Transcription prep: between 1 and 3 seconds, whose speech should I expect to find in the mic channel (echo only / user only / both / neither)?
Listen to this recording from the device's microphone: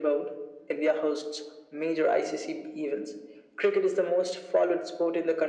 echo only